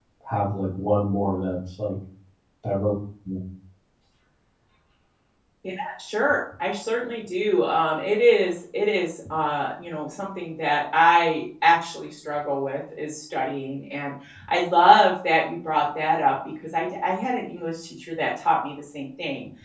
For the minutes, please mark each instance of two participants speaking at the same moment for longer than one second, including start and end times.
none

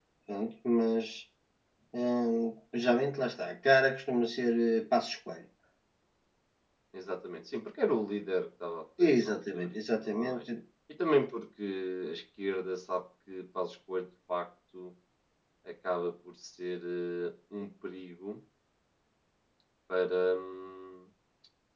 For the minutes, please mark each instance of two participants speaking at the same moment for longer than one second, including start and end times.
9.0-10.5

